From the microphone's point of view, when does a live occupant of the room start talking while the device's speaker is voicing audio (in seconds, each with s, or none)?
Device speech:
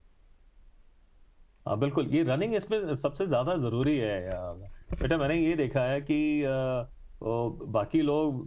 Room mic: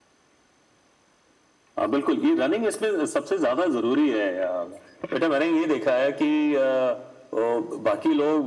none